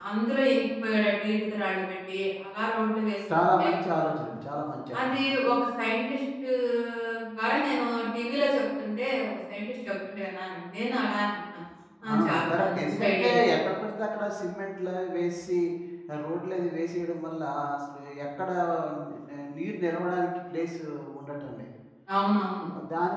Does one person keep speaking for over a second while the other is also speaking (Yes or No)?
Yes